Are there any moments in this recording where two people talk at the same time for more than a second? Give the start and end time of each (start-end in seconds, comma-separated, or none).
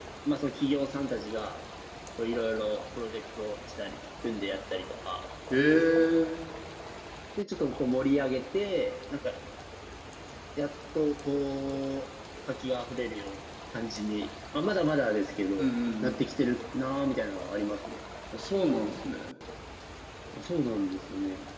none